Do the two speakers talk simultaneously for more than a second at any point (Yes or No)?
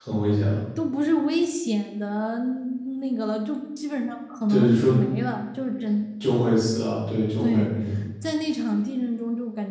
No